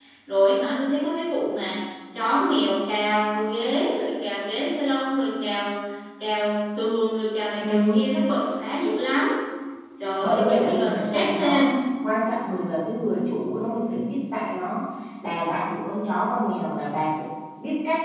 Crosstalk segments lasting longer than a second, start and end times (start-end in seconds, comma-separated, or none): 10.2-11.8